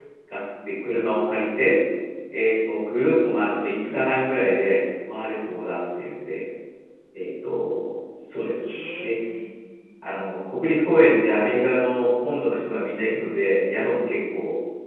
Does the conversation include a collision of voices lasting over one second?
No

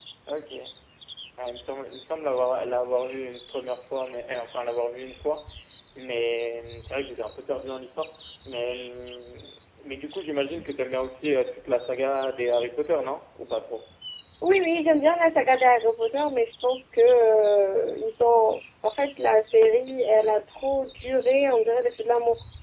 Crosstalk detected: No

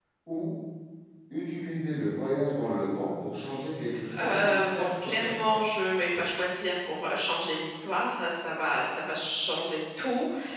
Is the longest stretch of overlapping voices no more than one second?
No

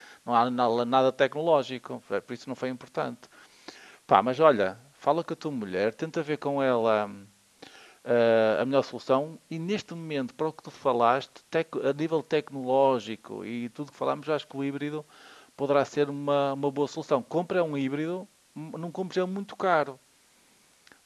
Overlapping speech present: No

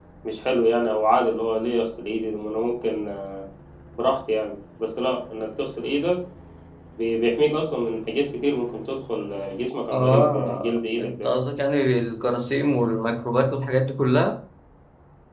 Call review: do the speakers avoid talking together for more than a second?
No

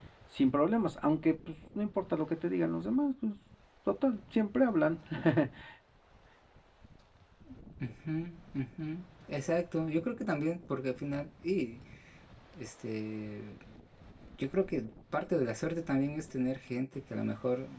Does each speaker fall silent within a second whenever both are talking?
Yes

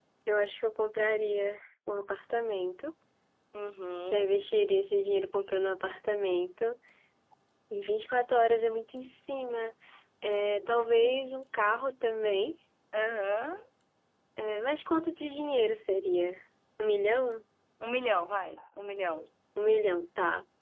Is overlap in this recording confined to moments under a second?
Yes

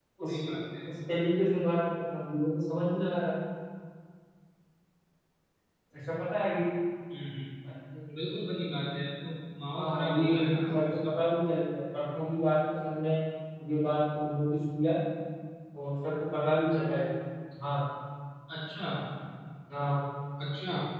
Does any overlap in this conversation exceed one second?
Yes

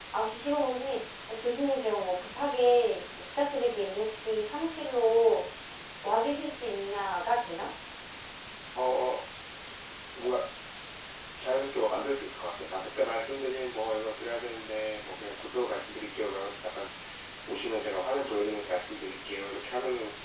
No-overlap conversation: Yes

